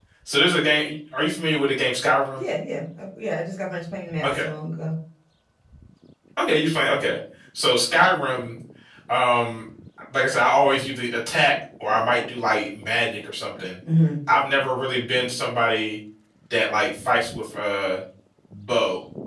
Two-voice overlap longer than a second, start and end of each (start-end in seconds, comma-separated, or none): none